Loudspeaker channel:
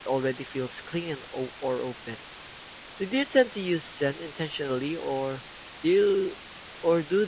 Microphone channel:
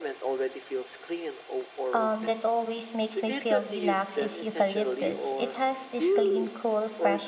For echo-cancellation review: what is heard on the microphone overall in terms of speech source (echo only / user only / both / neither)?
both